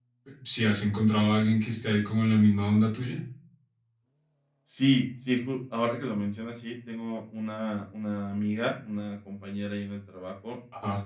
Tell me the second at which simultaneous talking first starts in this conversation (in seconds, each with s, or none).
none